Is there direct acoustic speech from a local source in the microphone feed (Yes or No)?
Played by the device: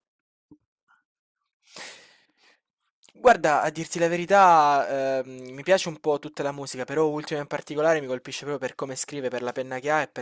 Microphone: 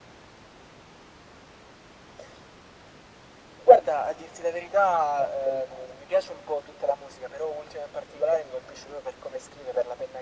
No